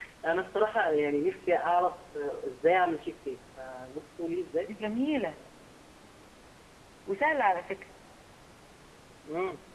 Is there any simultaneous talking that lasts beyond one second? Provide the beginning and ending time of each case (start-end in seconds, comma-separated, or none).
none